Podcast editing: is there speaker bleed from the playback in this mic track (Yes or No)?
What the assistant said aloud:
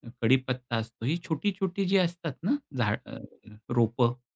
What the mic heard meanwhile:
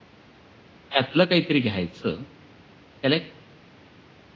No